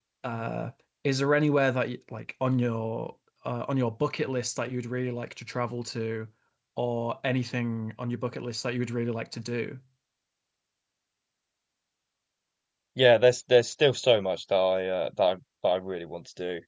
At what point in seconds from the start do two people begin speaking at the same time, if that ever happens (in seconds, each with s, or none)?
none